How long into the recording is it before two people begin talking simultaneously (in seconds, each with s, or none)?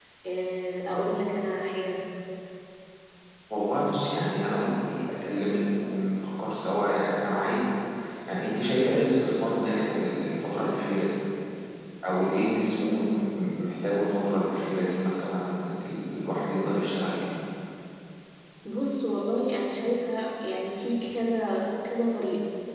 none